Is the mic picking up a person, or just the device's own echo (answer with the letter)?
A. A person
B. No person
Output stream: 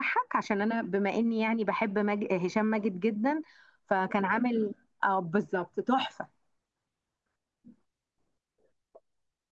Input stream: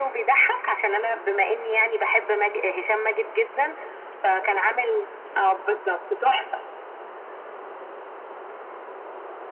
B